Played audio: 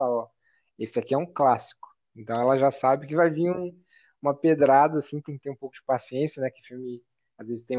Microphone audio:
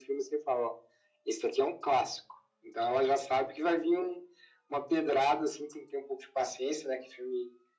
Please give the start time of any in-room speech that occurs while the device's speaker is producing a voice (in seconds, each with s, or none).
none